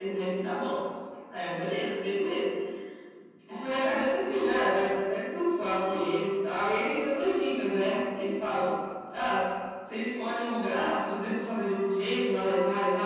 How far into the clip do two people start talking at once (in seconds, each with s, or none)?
none